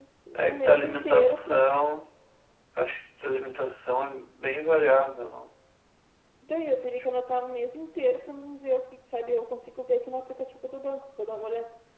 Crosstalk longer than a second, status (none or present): present